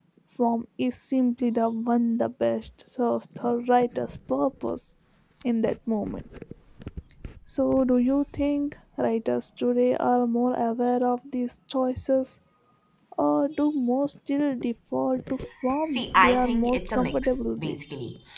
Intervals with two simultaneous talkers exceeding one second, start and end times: 15.9-17.8

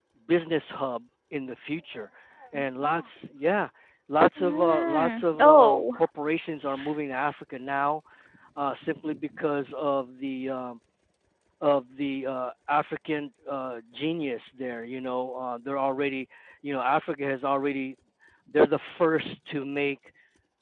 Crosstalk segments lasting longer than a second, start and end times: 4.4-5.8

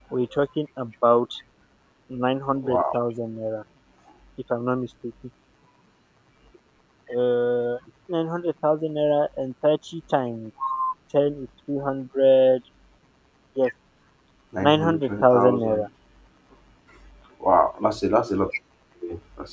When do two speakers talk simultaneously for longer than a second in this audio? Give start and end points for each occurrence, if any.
14.6-15.8

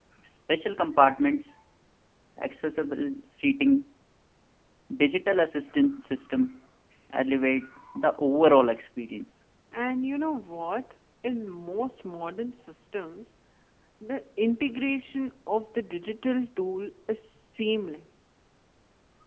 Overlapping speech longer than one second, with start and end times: none

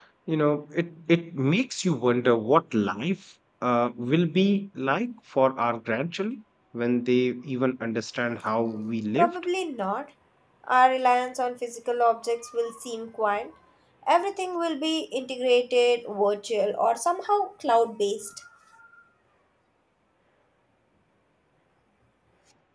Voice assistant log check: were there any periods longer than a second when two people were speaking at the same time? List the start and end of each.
none

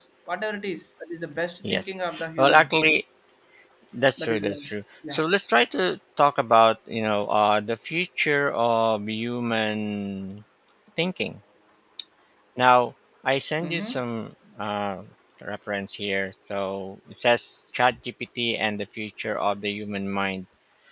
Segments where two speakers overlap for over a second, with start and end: none

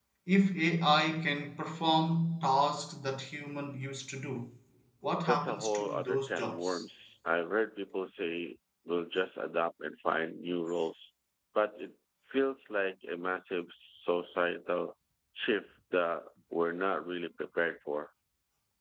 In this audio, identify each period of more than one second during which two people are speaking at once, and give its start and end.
5.3-6.8

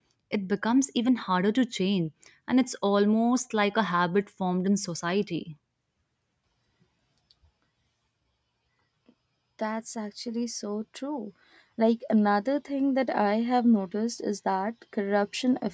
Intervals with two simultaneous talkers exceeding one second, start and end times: none

